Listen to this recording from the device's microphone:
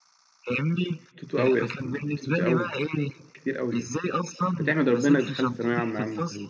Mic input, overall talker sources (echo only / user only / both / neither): both